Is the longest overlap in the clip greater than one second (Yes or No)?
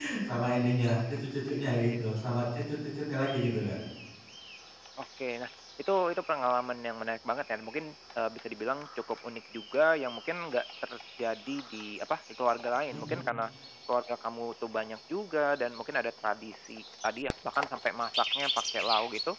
No